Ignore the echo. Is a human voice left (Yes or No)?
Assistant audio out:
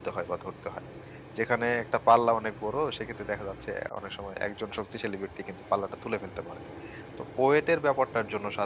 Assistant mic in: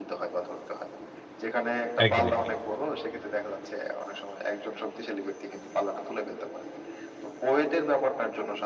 Yes